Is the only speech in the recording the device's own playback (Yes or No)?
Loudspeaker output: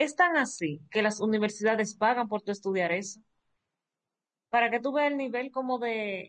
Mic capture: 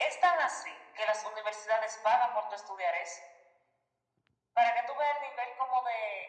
Yes